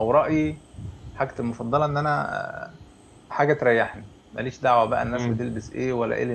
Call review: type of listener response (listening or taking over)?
listening